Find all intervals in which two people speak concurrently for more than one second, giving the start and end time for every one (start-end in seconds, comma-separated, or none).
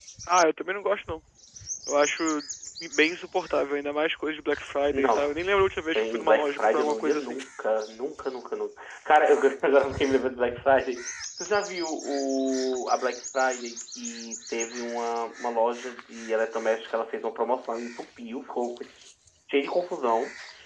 6.0-7.4